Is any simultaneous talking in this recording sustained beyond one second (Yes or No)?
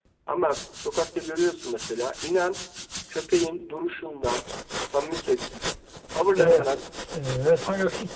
No